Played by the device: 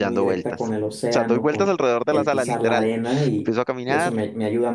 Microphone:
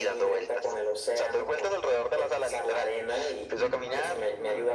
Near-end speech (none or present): present